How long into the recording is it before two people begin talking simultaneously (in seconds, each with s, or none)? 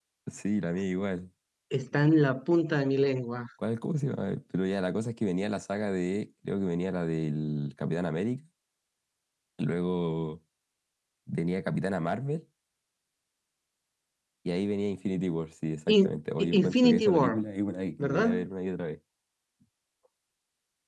15.9 s